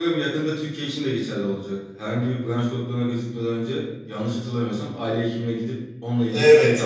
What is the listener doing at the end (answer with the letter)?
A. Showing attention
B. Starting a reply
B